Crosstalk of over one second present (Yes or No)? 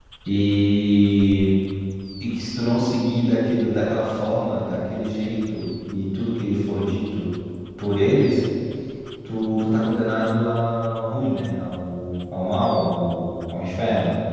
No